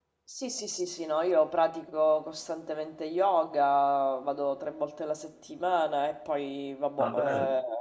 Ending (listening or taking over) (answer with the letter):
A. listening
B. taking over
A